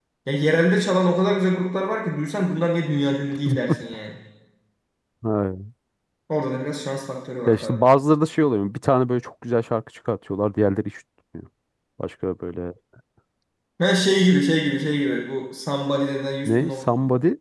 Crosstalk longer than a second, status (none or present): none